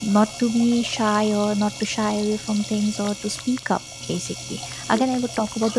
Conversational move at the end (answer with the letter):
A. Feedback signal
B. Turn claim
A